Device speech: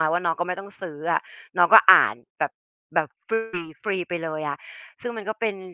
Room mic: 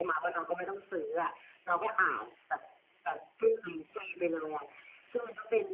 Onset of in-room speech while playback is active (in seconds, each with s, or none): none